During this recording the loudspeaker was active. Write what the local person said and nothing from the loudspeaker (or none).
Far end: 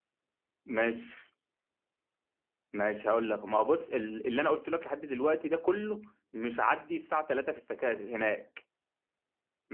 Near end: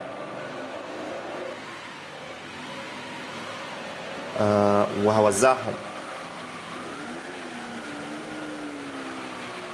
آه، وهوزعهم